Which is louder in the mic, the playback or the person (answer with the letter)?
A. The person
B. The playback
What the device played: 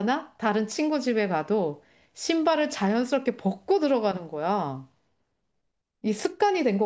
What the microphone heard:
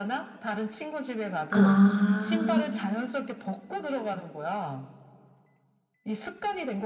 A